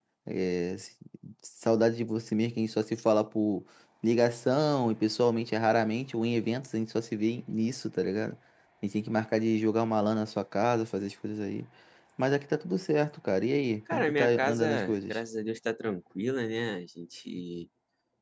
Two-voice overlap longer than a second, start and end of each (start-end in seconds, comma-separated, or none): 13.9-15.2